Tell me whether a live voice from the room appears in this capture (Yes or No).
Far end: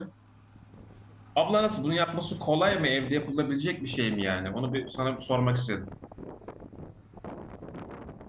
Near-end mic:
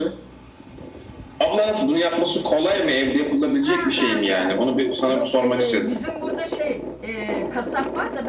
Yes